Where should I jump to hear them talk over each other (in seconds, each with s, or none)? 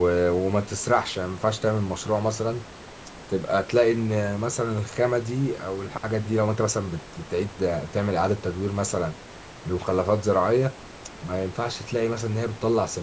none